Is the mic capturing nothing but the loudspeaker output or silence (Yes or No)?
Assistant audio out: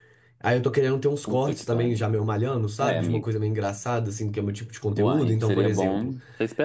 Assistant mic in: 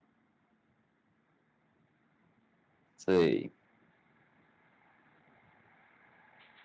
No